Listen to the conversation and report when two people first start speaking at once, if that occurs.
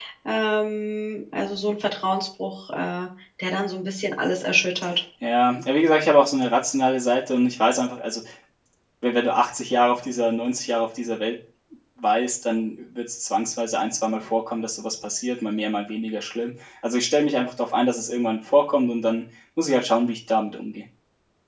none

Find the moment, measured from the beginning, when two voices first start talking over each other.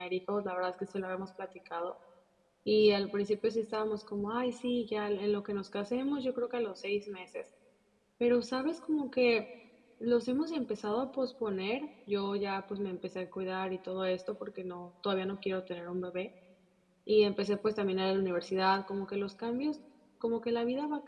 none

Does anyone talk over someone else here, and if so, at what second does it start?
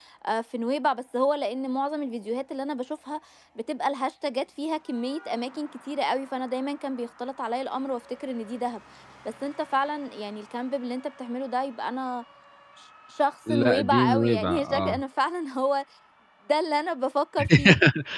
13.5 s

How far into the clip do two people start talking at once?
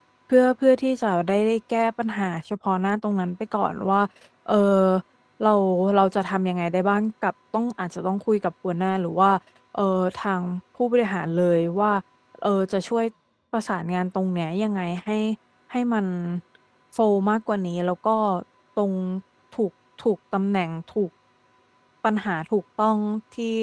none

